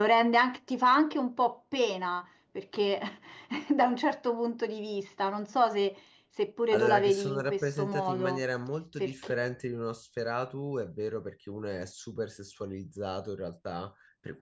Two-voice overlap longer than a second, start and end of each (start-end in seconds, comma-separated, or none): 6.7-8.4